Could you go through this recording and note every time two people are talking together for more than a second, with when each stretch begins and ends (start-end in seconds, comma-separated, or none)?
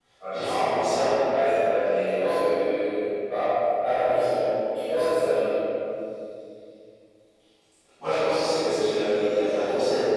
none